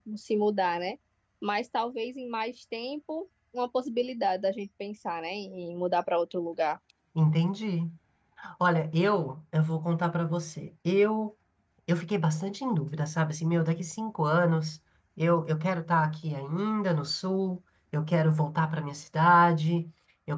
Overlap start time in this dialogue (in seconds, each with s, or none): none